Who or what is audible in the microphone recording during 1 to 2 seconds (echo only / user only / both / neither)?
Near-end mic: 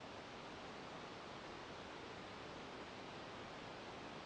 neither